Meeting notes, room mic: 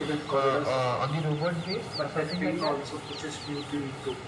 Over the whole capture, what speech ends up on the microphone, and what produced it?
both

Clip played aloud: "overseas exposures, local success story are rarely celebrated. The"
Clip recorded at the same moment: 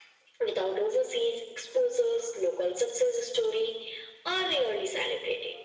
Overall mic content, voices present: echo only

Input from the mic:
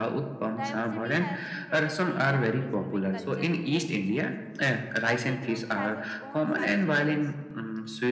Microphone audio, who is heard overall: both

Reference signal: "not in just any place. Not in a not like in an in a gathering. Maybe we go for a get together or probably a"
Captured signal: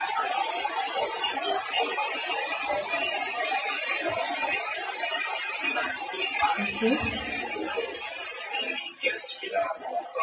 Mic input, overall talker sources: both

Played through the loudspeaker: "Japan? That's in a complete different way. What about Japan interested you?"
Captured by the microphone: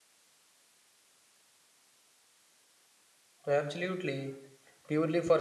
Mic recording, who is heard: user only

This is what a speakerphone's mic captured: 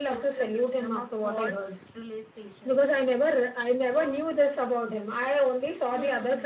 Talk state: echo only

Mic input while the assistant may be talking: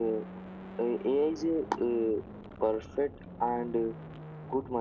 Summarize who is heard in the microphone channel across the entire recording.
echo only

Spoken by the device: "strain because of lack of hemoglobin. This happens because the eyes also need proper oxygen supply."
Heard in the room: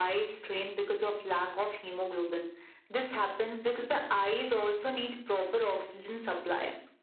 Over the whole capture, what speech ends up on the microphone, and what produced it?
echo only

